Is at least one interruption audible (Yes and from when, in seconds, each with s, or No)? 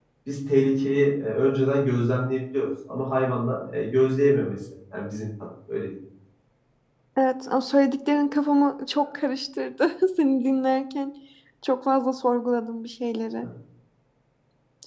No